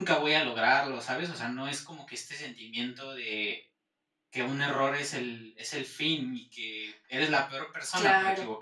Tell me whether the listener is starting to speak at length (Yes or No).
Yes